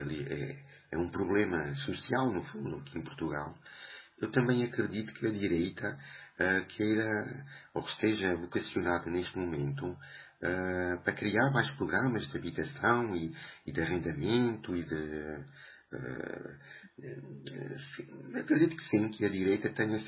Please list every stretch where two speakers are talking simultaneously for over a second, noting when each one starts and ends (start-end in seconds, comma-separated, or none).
none